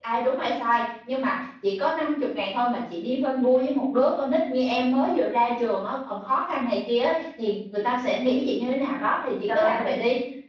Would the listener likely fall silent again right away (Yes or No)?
No